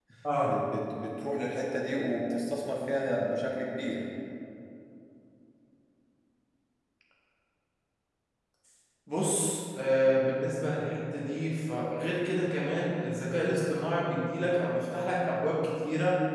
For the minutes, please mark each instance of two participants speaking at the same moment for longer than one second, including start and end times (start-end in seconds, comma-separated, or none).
none